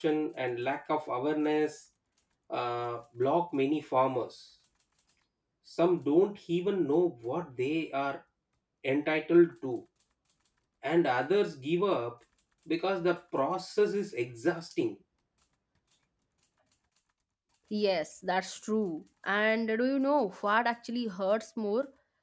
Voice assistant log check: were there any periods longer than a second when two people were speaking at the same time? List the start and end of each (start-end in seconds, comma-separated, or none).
none